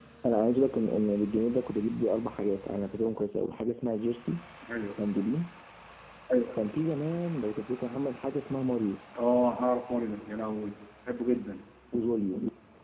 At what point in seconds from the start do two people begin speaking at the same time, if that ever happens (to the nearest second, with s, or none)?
none